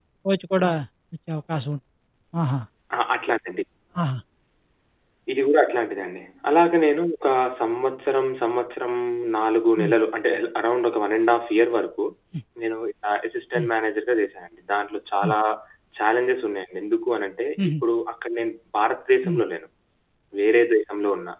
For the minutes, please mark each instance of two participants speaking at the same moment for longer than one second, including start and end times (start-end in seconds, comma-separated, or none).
none